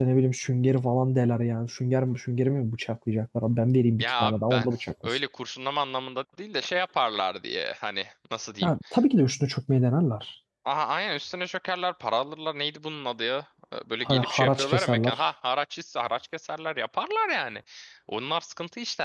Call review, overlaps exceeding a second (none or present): present